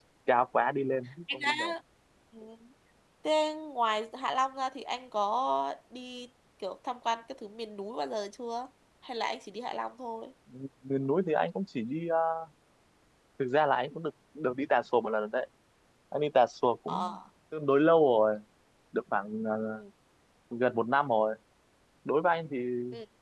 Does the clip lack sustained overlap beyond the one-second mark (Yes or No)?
Yes